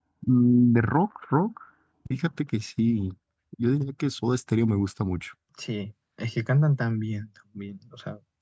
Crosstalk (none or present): none